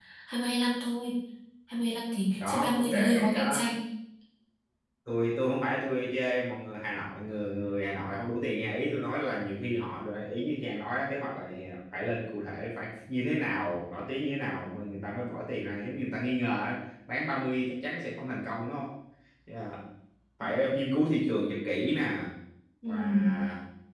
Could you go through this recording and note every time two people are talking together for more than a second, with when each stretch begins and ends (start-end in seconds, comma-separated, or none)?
2.3-3.6